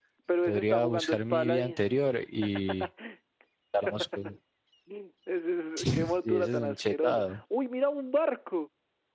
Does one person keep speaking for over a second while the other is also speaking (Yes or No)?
Yes